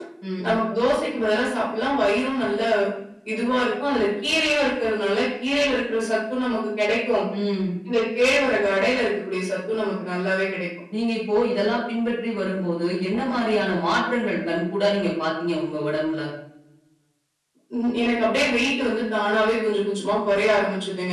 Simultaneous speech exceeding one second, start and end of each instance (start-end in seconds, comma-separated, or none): none